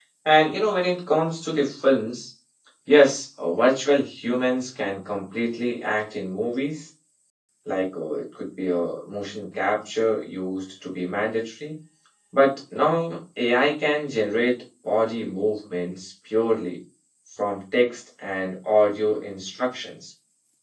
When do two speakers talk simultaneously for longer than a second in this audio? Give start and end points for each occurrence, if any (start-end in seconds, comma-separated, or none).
none